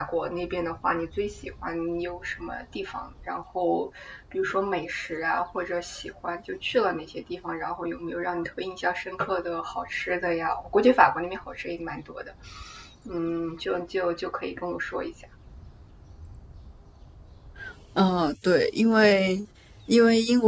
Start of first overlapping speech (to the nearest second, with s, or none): none